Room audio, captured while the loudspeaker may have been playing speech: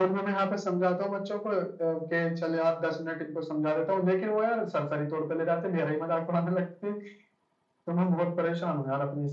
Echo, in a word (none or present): present